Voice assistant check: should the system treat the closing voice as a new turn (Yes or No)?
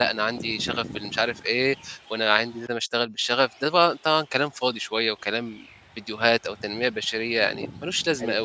Yes